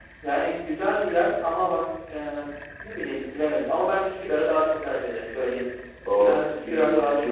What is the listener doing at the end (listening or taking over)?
taking over